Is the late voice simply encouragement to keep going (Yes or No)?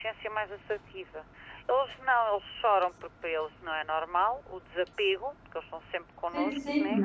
No